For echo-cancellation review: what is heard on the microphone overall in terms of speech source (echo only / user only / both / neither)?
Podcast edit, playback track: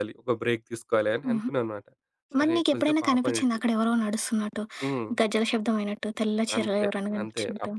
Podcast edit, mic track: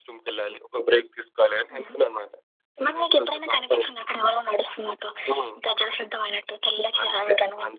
echo only